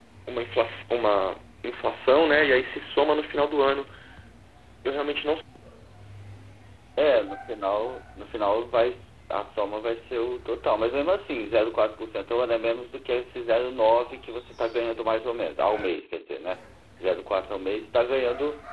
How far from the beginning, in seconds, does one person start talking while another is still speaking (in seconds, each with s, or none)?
none